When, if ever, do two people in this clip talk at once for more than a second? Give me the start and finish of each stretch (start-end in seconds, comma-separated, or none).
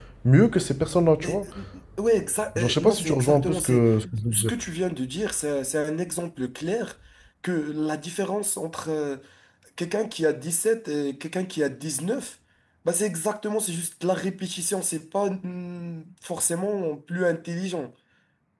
2.5-3.8